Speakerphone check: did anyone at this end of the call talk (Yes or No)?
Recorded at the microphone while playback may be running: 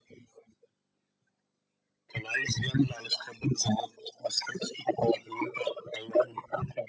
No